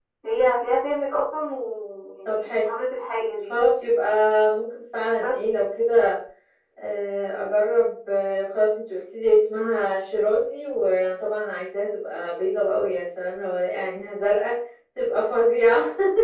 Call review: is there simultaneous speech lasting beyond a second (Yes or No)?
No